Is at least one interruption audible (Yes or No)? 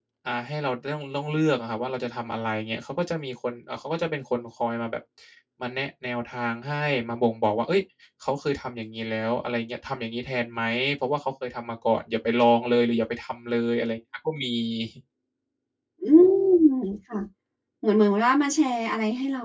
No